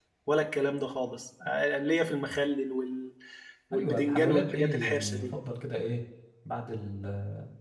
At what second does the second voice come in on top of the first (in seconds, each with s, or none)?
3.7 s